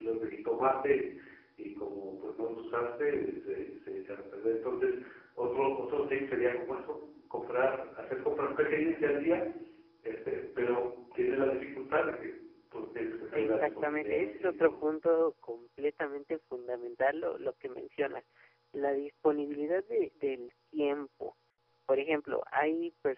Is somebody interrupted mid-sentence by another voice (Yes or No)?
Yes